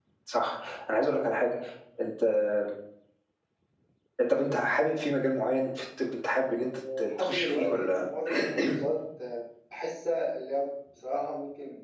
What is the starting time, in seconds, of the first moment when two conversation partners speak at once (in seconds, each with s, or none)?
6.6 s